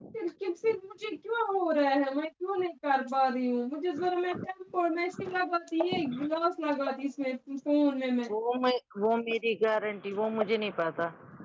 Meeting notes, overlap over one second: none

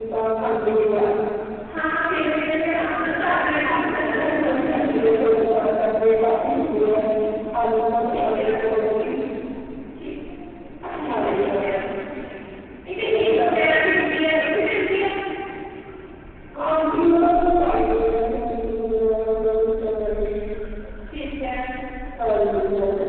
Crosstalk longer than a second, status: present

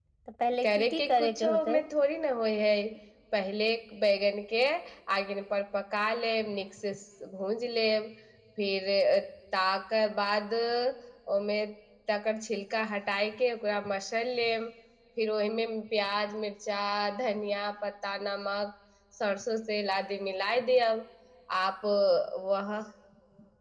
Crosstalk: present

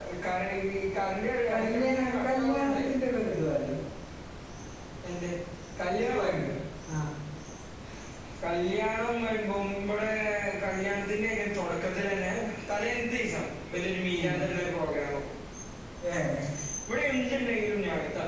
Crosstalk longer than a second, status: present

